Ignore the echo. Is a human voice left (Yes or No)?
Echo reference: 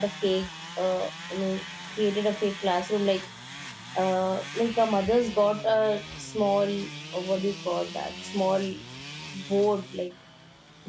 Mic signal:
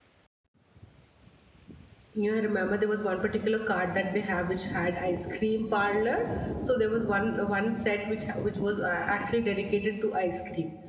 Yes